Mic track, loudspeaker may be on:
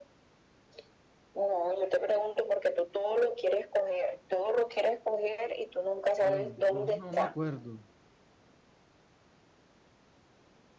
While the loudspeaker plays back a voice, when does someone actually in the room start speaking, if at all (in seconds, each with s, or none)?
6.2 s